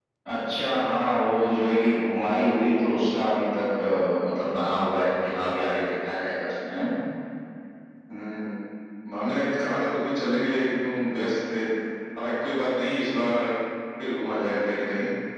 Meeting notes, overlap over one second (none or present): none